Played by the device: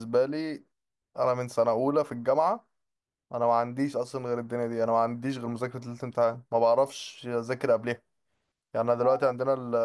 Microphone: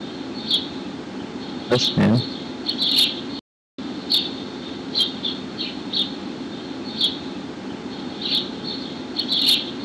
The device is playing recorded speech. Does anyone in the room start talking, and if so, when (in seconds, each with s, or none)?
1.7 s